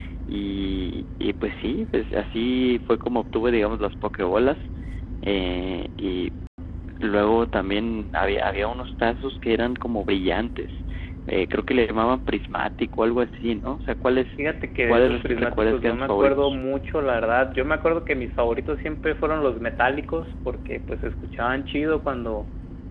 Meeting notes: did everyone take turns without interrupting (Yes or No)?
No